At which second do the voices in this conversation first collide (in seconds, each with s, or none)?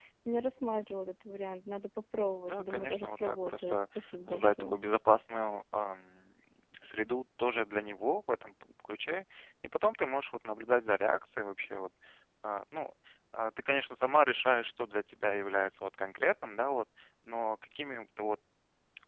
2.5 s